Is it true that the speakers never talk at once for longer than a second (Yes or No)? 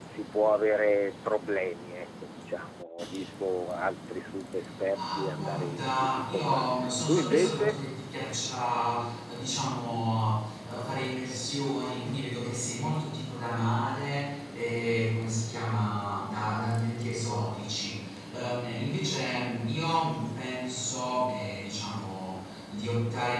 No